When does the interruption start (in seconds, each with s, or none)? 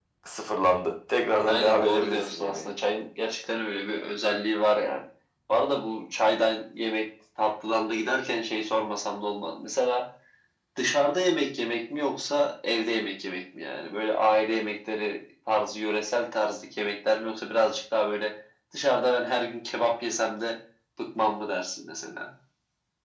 1.4 s